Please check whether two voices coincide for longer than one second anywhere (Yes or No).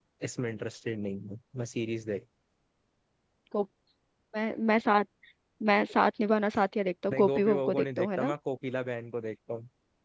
Yes